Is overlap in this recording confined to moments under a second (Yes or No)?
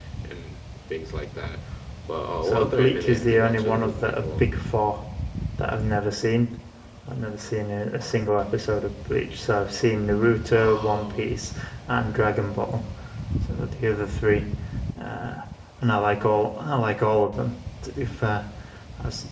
No